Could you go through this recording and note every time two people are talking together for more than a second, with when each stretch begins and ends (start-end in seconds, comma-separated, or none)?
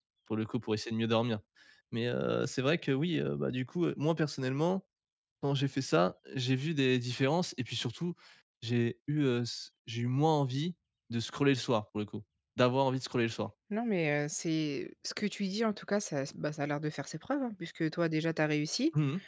none